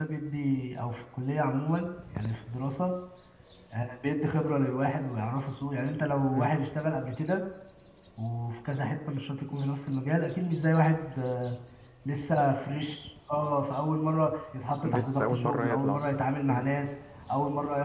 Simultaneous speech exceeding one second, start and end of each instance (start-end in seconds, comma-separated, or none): 14.8-16.1